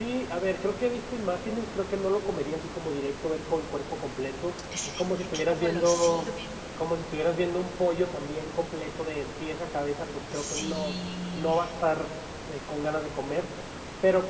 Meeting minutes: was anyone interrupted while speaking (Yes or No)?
Yes